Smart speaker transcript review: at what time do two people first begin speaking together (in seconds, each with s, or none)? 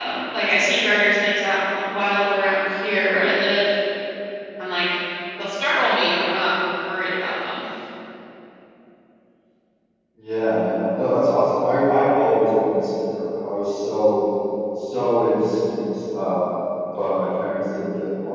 none